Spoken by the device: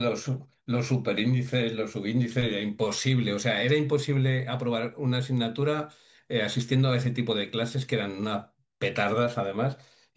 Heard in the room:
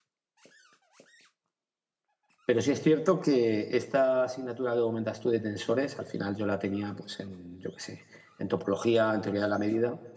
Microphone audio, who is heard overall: user only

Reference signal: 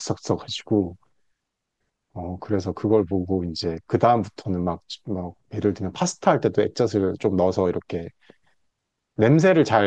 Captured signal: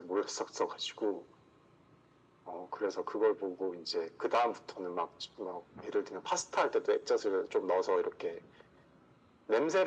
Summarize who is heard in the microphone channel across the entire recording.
echo only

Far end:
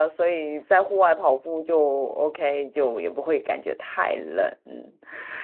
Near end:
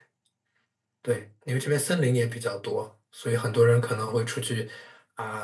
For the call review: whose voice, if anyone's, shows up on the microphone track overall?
user only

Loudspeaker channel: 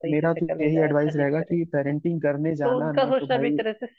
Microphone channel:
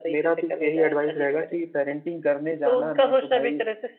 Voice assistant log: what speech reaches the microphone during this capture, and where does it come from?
echo only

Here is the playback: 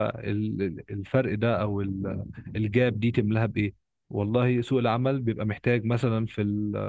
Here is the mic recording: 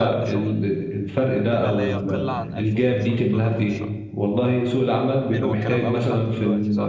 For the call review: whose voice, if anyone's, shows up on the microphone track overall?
both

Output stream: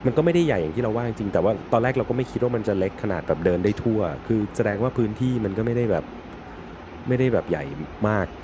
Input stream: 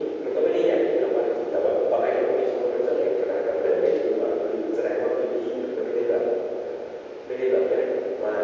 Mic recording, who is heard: echo only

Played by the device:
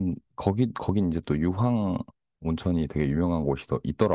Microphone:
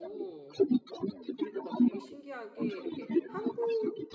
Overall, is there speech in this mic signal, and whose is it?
both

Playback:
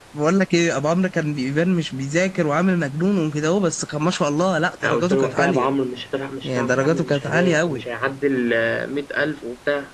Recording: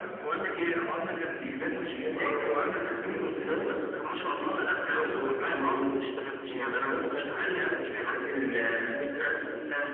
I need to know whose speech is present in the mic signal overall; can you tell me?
both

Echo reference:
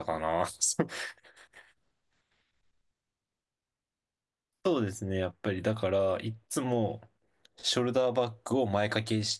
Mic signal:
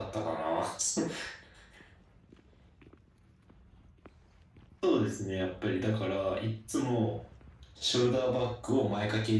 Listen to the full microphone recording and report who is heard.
echo only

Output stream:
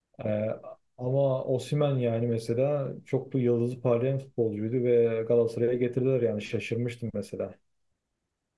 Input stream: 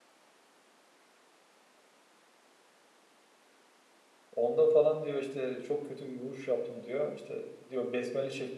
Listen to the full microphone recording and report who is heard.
user only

